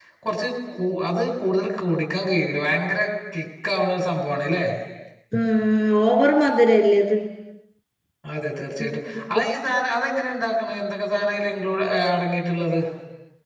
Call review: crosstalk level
none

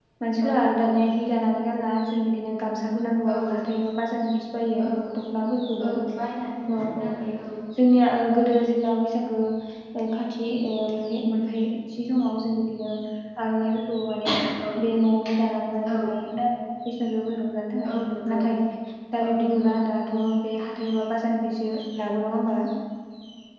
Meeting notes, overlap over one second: none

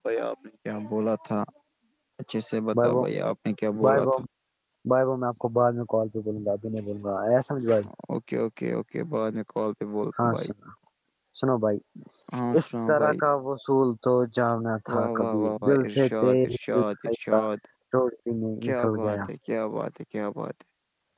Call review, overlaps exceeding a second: present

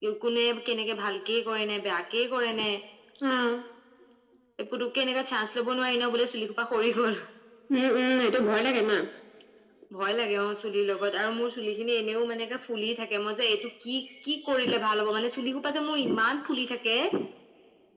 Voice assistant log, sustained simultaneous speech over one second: none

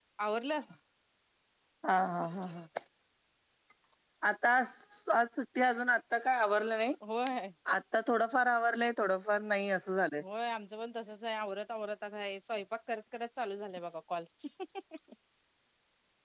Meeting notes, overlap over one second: none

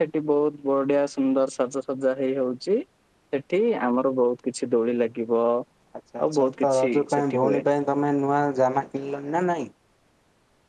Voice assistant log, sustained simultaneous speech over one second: present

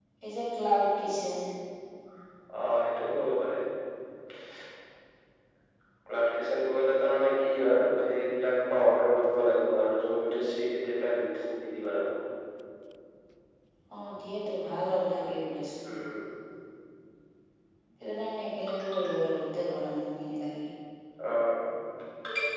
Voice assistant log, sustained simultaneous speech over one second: none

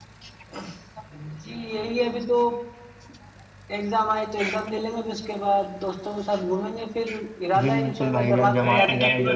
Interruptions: present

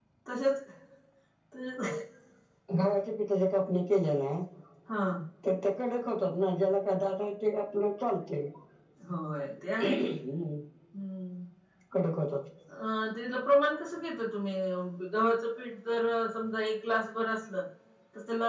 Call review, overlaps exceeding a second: none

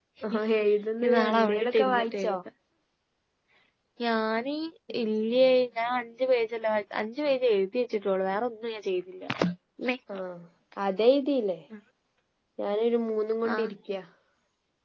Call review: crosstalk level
present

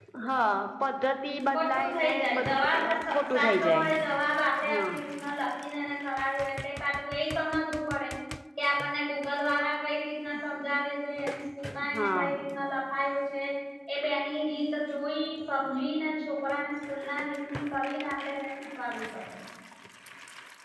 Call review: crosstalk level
present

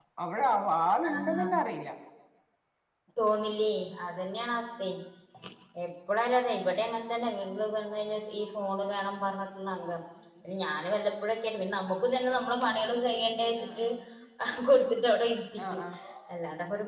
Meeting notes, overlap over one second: none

